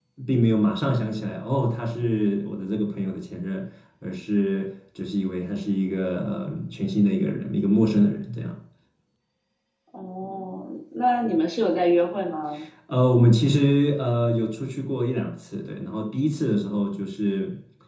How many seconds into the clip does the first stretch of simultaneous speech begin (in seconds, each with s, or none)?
none